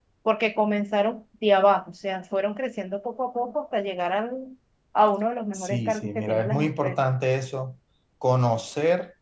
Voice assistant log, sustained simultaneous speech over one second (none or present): present